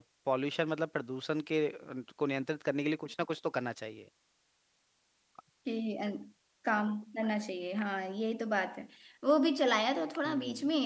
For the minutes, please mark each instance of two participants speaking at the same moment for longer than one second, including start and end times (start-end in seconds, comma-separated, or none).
none